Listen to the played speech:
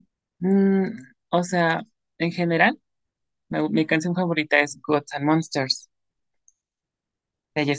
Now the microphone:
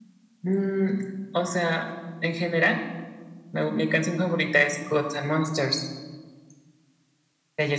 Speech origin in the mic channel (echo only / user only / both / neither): echo only